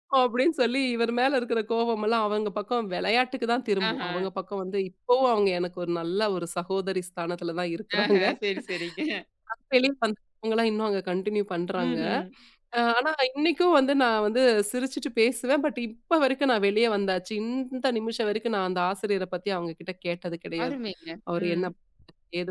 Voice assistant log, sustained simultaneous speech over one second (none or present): none